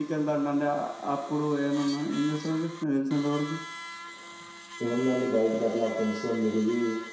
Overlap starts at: none

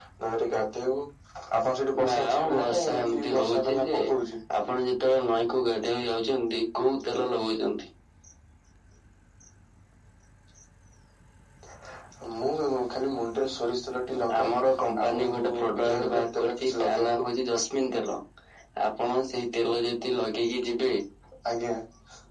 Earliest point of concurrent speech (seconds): 2.1 s

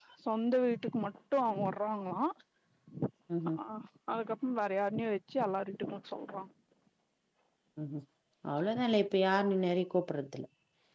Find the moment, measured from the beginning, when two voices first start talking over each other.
none

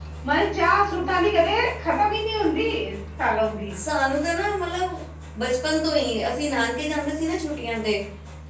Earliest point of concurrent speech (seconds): none

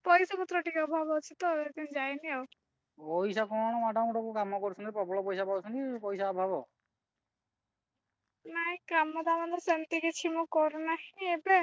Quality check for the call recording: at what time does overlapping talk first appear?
none

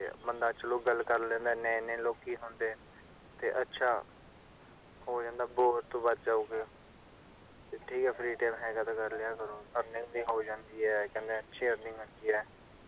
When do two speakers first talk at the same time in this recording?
none

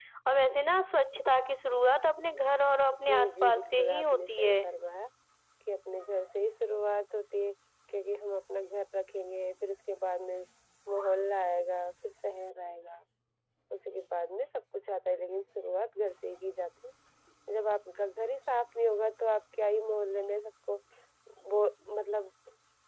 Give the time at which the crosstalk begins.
3.1 s

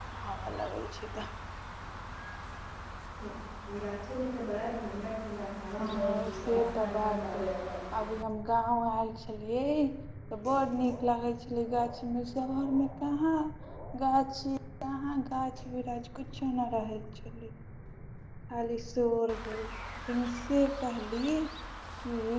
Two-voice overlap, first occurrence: 5.8 s

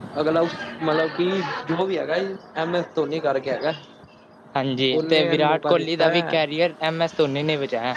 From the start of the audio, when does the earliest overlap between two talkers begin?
4.9 s

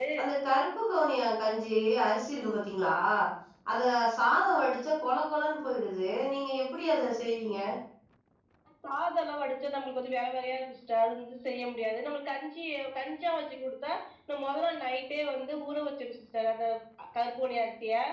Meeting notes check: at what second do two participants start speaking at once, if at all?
none

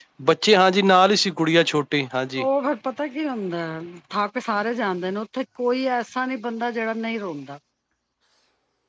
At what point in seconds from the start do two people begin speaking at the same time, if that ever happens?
none

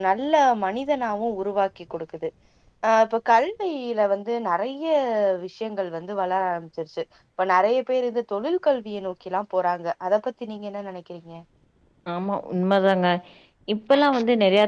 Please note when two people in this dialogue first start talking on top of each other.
none

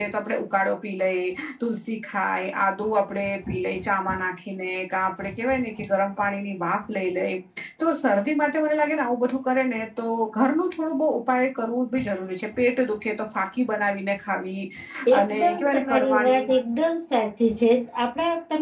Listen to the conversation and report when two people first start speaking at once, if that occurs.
15.2 s

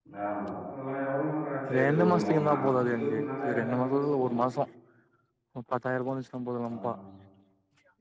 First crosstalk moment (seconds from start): 1.7 s

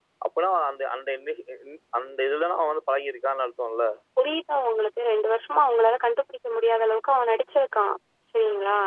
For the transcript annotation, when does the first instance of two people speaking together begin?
none

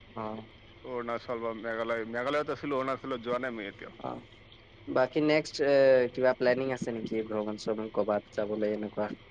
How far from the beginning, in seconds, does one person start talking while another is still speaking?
none

